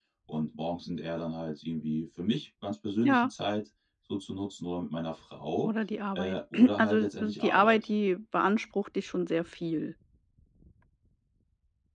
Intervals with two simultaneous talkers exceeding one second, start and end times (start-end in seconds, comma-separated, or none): 6.2-7.9